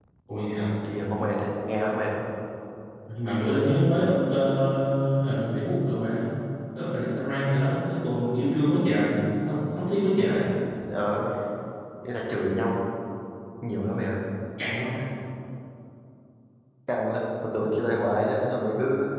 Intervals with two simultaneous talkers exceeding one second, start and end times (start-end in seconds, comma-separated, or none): none